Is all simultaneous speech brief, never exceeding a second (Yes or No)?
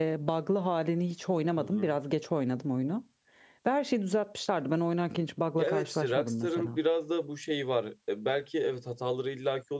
No